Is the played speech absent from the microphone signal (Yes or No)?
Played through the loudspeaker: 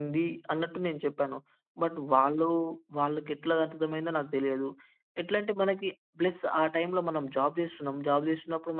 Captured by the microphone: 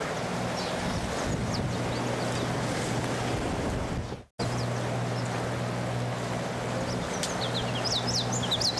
Yes